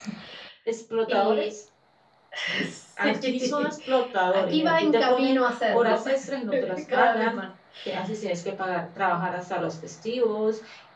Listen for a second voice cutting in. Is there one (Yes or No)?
Yes